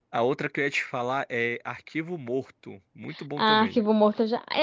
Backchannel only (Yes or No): No